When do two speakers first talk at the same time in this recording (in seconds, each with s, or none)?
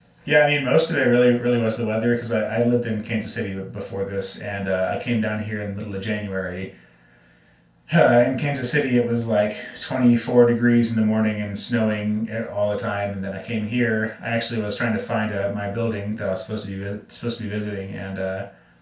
none